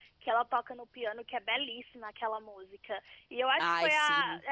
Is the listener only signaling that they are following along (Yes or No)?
Yes